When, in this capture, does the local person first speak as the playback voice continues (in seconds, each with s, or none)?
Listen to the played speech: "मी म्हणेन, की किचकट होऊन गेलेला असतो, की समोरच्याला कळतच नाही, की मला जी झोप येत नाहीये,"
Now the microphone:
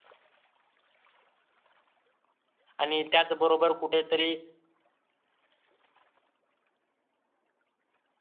2.8 s